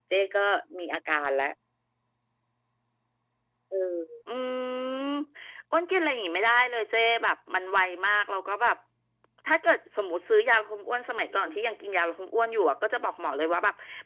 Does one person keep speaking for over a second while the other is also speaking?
No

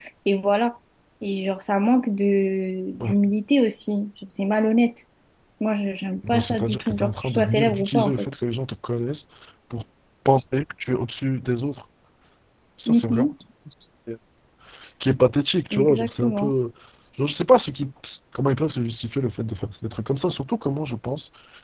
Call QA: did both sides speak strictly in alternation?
No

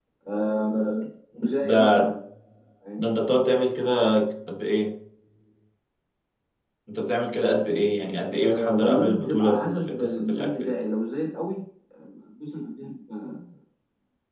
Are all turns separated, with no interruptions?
No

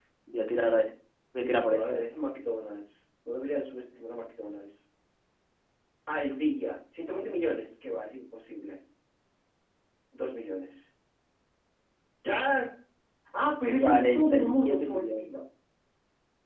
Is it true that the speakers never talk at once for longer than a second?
No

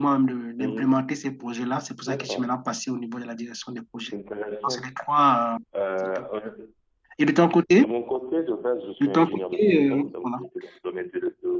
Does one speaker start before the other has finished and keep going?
Yes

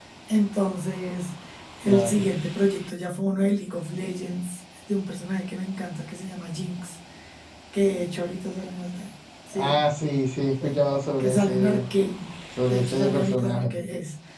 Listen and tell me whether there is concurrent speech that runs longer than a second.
Yes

